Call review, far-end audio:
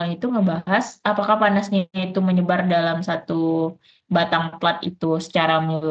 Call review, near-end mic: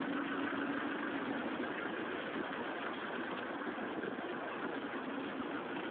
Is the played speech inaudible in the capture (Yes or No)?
Yes